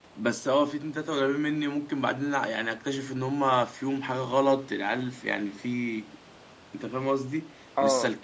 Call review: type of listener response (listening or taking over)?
listening